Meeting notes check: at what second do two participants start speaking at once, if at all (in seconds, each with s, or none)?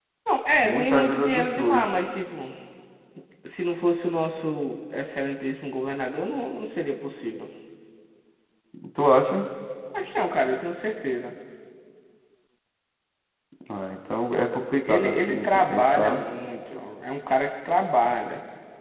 0.6 s